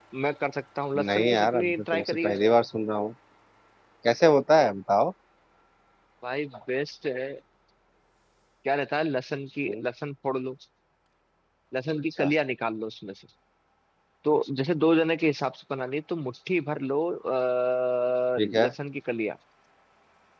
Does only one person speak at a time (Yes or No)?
No